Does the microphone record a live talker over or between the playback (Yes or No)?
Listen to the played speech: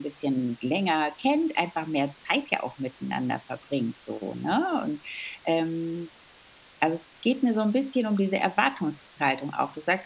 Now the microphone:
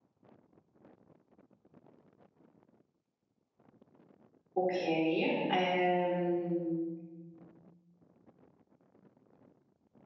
Yes